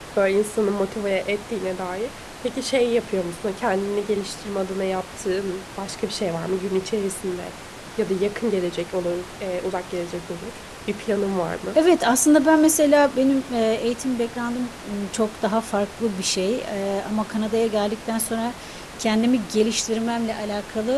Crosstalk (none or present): none